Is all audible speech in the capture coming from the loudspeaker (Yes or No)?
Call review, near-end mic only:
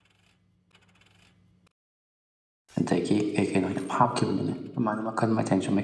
No